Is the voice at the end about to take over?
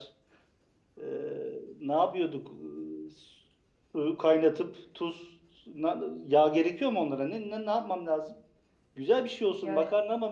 No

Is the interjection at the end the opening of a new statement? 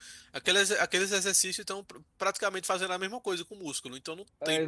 Yes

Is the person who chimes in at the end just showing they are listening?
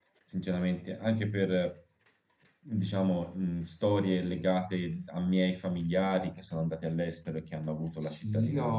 No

